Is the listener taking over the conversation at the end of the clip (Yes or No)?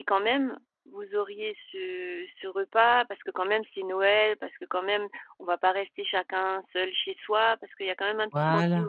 No